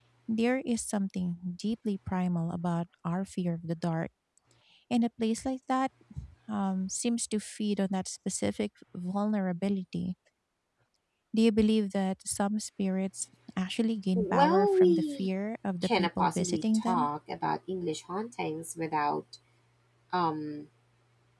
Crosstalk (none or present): present